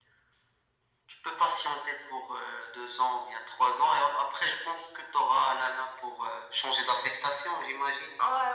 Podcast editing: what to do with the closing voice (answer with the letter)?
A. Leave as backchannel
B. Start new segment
B